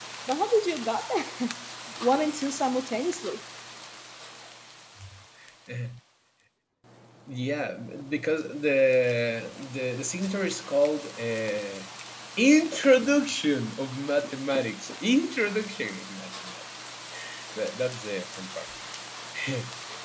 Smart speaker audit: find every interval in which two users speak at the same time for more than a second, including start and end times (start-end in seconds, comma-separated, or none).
none